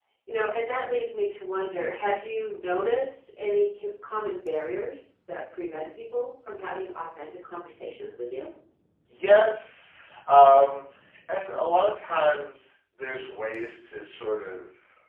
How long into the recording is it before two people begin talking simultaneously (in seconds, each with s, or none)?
none